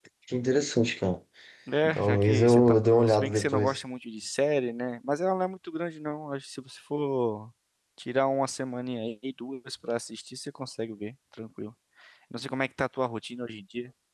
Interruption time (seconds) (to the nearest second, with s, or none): 2 s